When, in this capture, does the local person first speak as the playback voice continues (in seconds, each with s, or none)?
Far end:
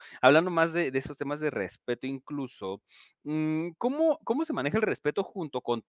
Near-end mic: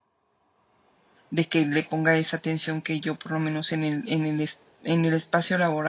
1.3 s